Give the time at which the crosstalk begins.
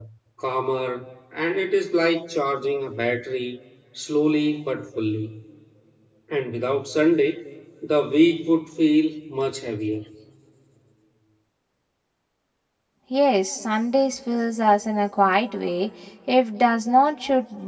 none

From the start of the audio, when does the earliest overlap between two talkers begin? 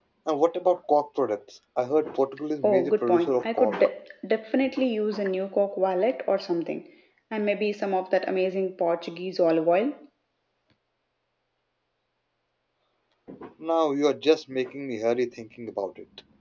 2.6 s

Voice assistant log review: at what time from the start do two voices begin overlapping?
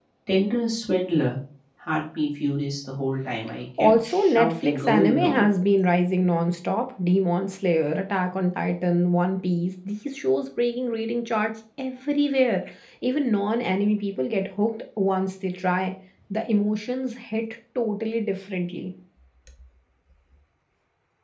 3.8 s

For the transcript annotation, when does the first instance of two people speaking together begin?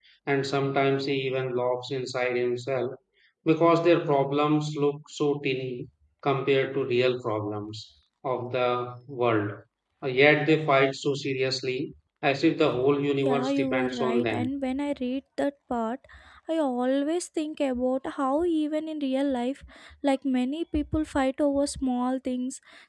13.2 s

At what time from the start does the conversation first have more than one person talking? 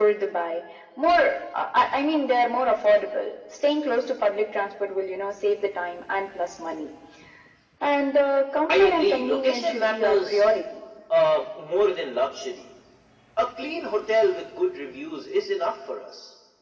8.7 s

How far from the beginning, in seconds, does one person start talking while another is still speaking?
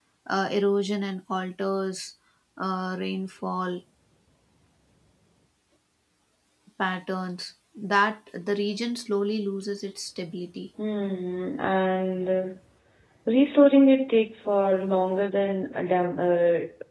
none

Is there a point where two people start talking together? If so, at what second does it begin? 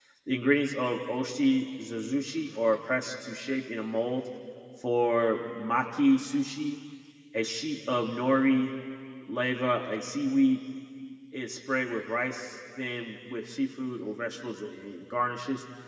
none

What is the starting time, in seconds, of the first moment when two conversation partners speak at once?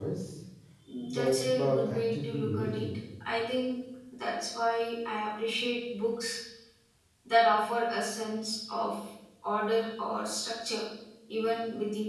1.1 s

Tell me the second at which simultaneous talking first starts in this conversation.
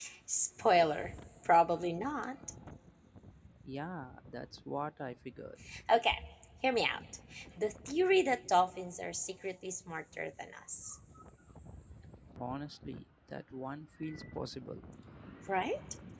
none

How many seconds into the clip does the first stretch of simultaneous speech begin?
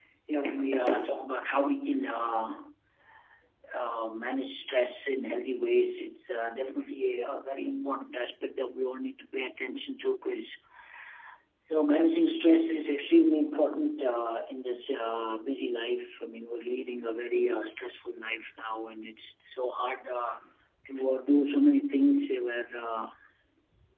none

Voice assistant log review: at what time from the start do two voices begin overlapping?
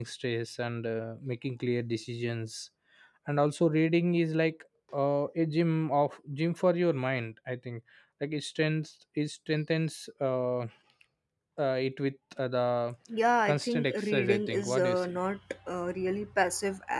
13.4 s

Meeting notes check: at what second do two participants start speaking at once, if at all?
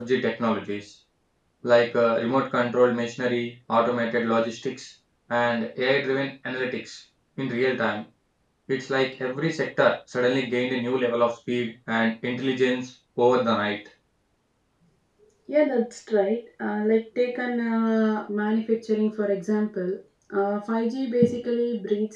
none

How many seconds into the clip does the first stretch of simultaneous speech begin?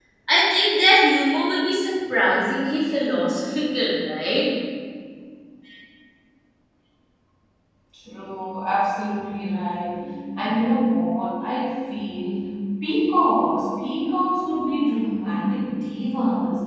none

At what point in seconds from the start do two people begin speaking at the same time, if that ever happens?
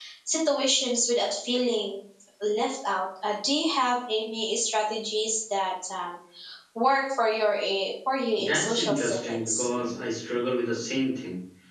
8.4 s

